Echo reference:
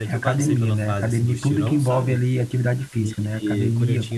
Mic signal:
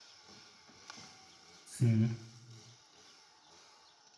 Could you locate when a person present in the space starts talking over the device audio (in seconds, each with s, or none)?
1.6 s